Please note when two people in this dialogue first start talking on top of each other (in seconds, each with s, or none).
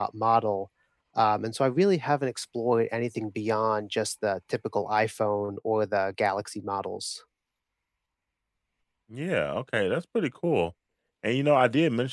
none